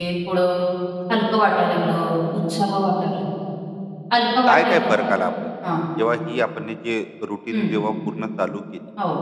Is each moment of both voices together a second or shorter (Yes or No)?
Yes